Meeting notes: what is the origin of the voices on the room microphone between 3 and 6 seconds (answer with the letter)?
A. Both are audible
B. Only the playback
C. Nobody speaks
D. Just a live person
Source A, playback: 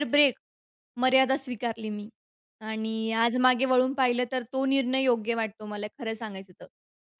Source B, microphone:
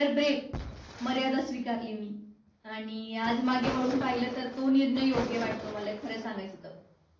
B